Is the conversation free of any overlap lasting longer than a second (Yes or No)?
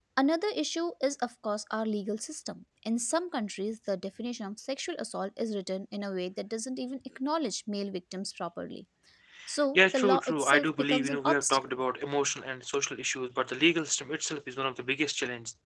No